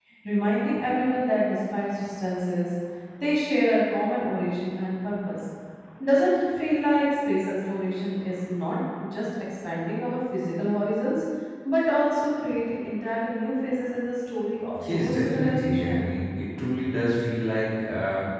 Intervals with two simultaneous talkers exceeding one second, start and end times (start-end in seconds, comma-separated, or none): 14.9-16.1